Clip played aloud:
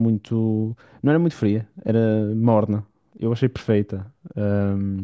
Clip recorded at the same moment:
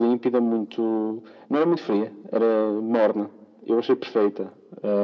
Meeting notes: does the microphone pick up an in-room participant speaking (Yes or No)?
No